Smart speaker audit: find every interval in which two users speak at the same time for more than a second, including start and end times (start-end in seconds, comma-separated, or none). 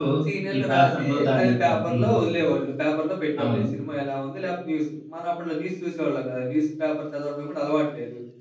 0.5-2.1